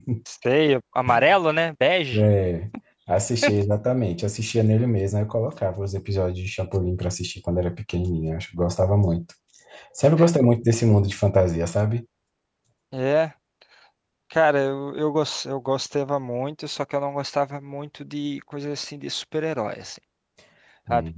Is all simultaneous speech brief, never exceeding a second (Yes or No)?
Yes